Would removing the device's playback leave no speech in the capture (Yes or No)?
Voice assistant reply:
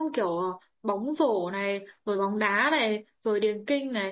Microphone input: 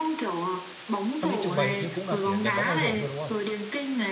No